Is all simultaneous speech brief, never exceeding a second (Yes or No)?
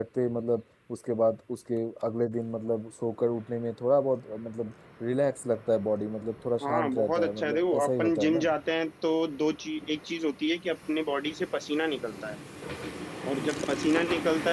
No